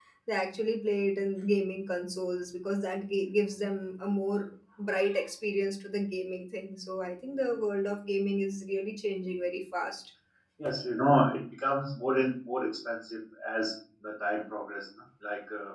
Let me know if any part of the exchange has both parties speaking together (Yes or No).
No